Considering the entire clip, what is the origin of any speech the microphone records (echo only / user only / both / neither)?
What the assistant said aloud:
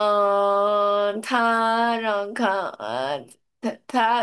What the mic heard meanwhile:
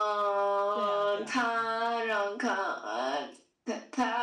both